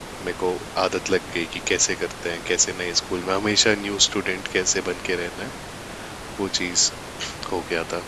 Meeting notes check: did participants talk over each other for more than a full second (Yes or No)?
No